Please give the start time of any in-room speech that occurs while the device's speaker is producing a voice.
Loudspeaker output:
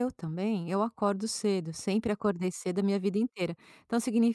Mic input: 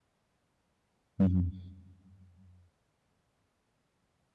1.2 s

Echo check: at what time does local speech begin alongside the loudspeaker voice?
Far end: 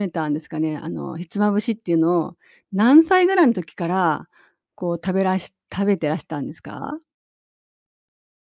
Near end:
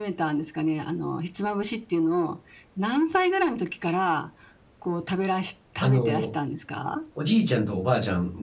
5.8 s

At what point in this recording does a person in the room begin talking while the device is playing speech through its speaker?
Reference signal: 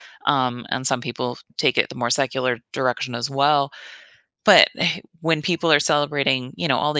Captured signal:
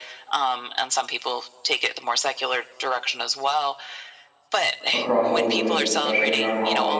4.9 s

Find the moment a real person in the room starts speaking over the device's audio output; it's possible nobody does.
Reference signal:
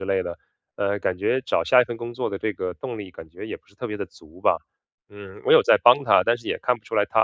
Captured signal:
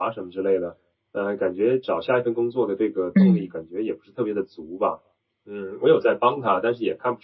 3.1 s

